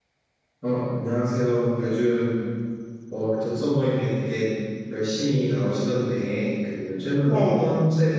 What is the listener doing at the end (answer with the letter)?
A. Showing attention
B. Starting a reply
A